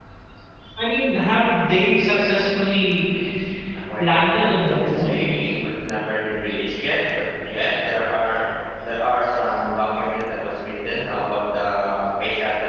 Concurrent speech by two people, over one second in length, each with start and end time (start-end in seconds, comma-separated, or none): 4.0-5.2